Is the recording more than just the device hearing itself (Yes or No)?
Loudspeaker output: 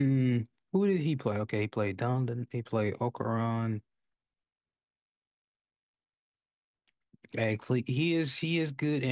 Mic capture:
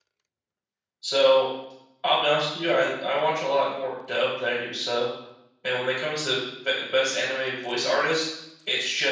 Yes